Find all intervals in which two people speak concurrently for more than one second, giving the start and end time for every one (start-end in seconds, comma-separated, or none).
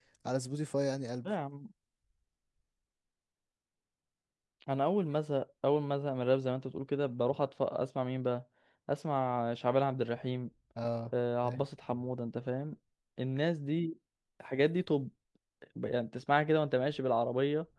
none